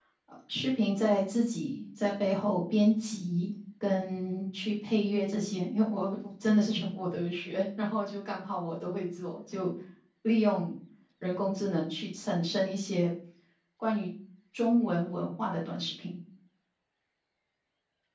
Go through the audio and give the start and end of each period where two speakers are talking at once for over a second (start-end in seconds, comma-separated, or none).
none